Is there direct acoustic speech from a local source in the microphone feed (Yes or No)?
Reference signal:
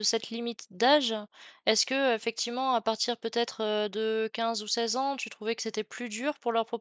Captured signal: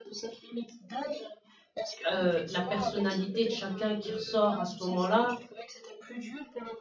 Yes